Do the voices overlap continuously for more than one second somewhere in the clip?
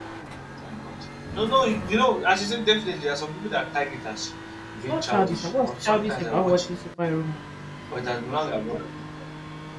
Yes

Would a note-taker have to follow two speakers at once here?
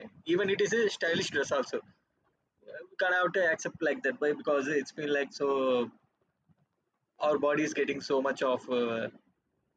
No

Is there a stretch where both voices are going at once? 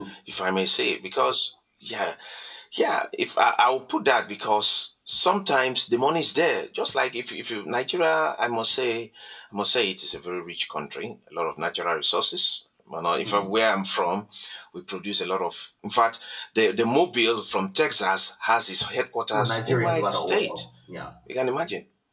Yes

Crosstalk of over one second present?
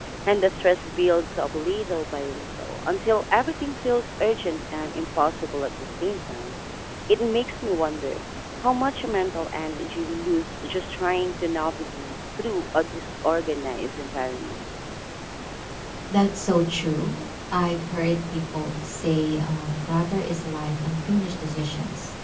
No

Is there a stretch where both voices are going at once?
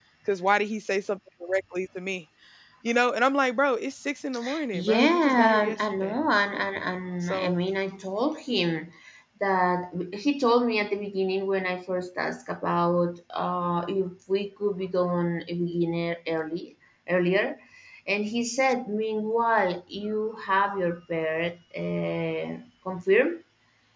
Yes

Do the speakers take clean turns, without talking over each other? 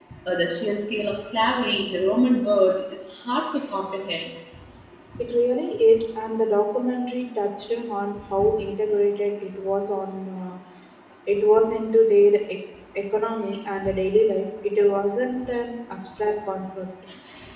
Yes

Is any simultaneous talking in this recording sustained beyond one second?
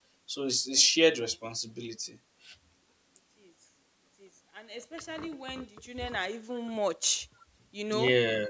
No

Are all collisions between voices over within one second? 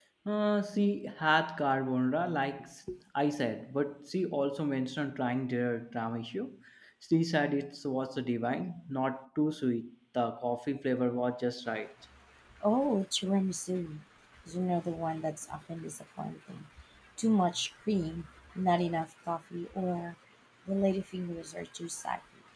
Yes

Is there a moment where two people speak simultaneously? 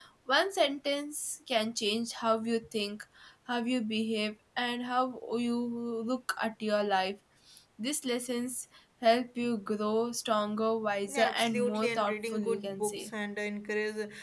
Yes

